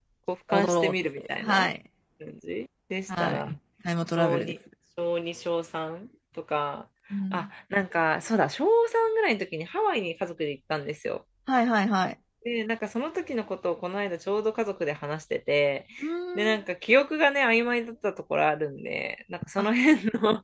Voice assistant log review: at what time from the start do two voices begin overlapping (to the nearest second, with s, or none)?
1 s